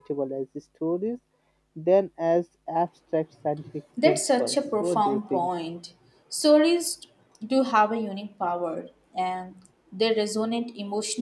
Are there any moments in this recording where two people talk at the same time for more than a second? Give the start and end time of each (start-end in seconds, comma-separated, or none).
4.0-5.5